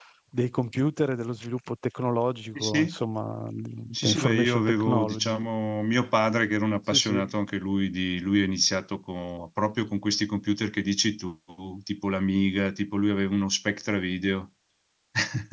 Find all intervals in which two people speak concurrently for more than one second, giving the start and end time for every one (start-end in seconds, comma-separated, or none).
3.9-5.3